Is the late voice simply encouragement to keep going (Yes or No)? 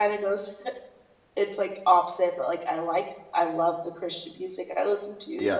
Yes